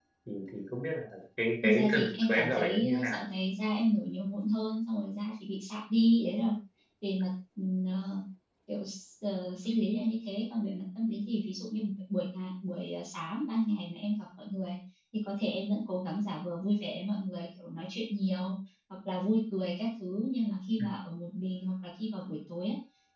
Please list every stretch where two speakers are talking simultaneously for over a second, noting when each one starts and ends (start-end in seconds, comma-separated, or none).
1.6-3.2